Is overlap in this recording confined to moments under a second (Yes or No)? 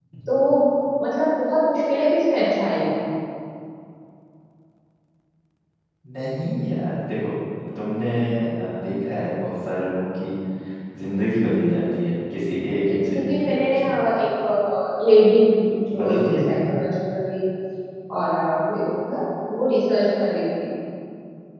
No